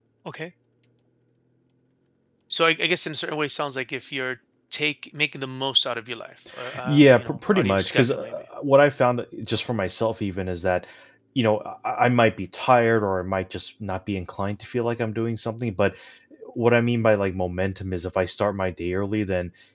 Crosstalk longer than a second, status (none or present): present